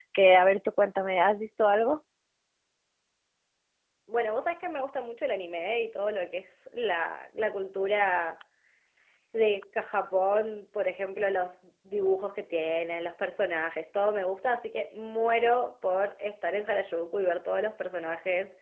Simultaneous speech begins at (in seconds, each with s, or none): none